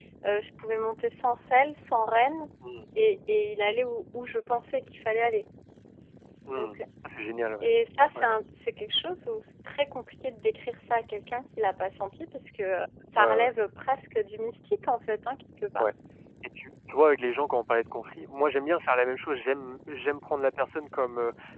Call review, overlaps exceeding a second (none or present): none